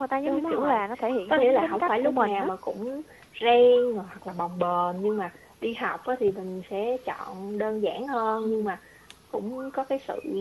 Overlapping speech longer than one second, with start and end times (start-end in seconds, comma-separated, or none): 1.3-2.5